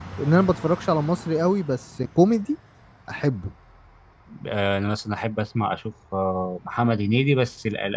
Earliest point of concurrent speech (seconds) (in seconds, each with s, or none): none